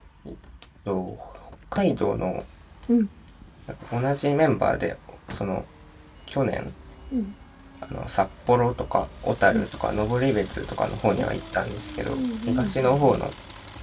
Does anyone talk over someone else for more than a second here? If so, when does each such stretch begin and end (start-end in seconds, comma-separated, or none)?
11.2-13.0